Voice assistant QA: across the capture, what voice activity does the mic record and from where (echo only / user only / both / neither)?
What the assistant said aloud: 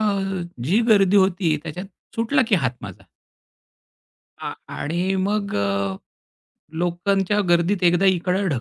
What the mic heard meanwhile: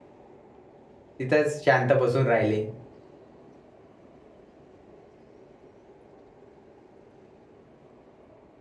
user only